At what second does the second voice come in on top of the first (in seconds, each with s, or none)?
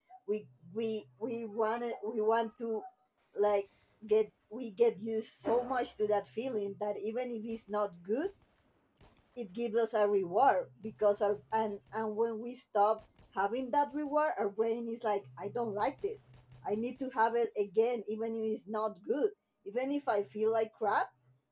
none